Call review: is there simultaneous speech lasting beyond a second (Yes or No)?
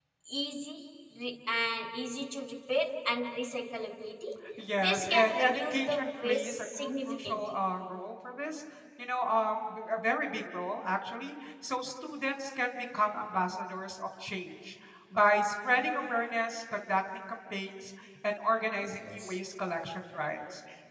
Yes